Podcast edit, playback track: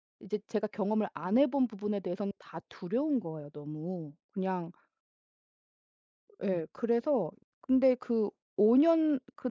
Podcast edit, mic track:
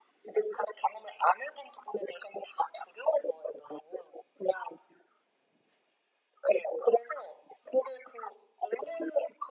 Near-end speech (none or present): none